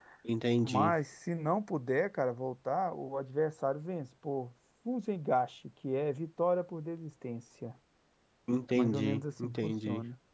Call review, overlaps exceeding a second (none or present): present